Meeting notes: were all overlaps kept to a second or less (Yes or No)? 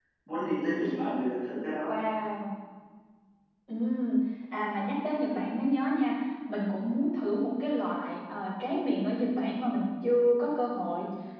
Yes